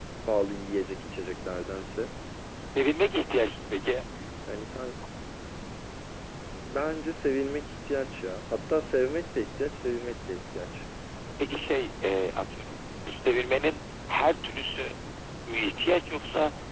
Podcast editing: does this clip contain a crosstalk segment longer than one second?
No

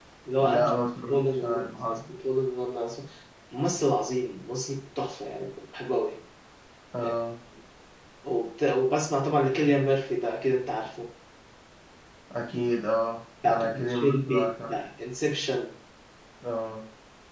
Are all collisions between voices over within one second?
No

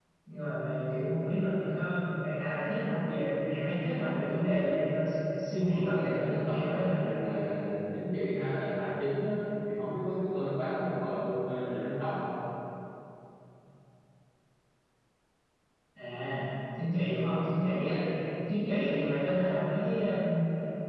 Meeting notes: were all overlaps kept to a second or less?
No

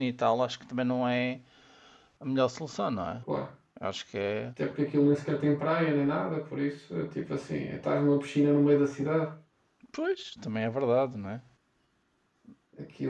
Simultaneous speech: No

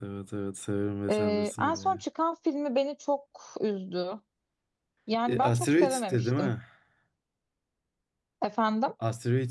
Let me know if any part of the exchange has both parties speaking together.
Yes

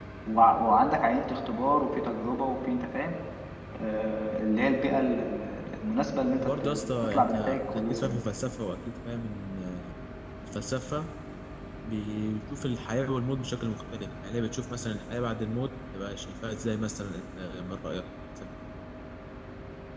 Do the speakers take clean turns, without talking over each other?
No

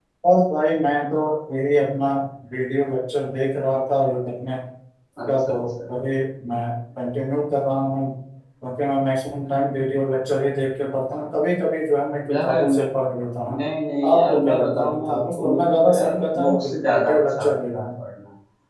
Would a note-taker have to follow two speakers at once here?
Yes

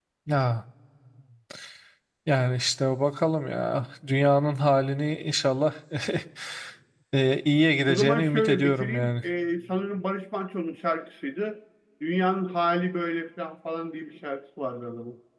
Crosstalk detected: Yes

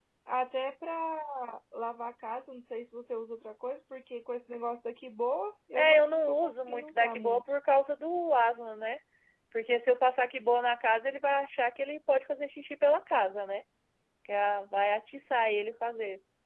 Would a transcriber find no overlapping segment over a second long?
No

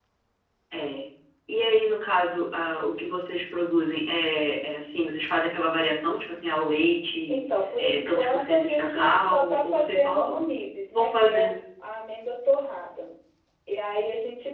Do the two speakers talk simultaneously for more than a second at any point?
Yes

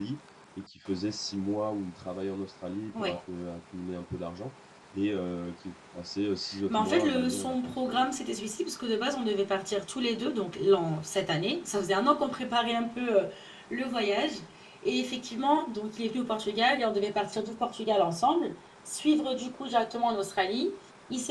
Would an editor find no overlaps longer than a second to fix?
No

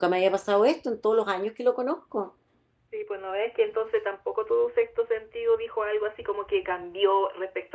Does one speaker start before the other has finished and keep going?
No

